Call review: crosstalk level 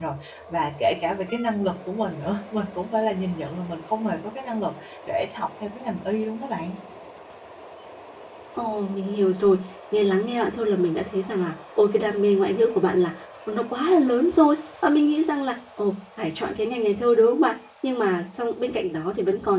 none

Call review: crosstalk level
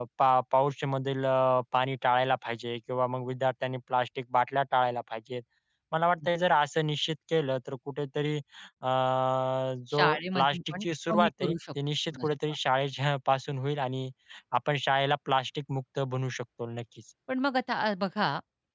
present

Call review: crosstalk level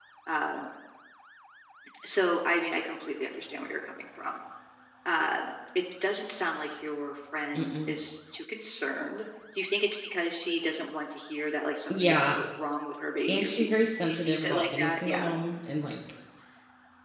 present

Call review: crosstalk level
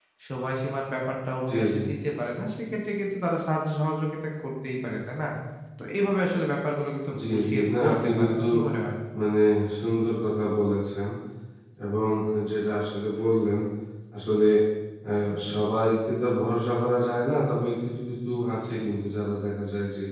present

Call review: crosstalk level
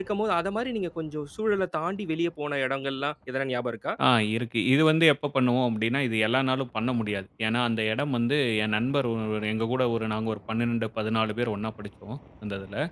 none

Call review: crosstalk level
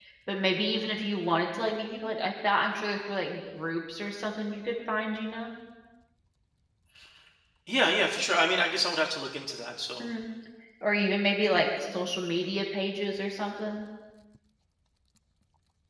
none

